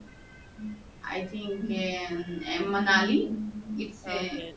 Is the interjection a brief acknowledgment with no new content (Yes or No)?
No